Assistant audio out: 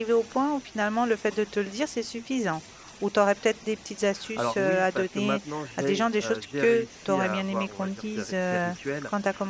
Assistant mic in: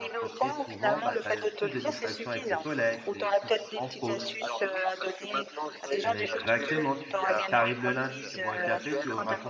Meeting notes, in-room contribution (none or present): present